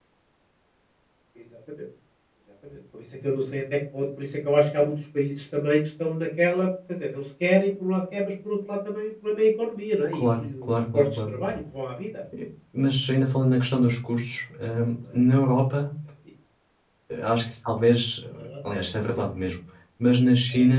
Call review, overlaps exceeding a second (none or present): present